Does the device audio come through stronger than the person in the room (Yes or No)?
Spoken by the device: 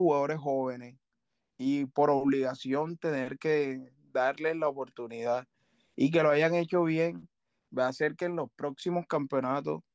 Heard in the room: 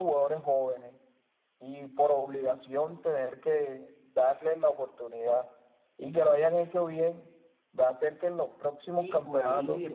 Yes